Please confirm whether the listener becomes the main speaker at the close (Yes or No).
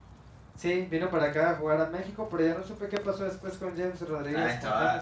Yes